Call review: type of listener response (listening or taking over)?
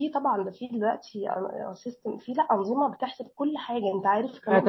taking over